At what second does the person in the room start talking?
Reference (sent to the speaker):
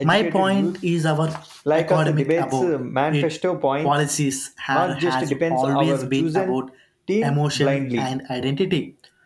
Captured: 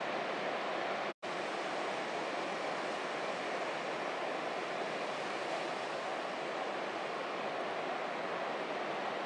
none

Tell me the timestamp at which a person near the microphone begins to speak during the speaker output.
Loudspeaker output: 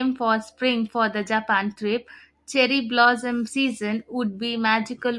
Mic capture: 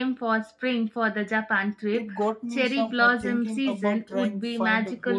2 s

